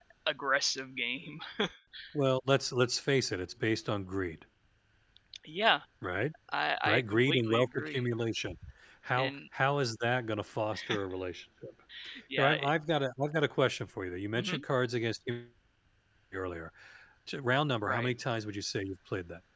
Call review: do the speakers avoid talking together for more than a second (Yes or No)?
No